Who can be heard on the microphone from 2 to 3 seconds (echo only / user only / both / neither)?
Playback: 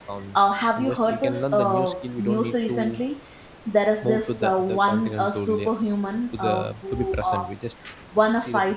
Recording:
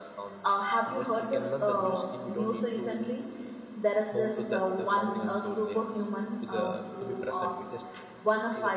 echo only